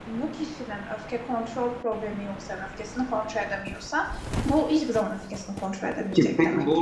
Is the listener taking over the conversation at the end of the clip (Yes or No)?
Yes